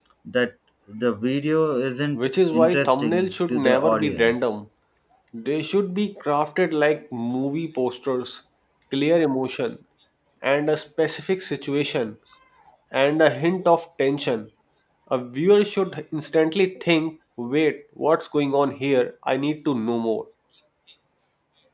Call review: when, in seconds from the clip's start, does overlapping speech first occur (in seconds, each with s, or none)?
2.1 s